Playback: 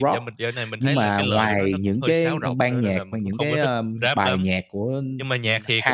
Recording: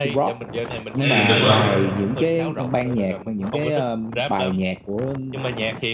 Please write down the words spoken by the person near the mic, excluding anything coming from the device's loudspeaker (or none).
Ừm, đúng rồi.